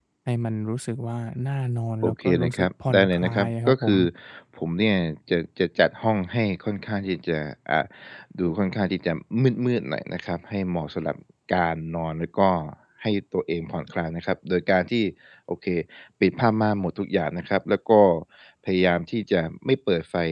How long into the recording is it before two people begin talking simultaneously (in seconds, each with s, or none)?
2.0 s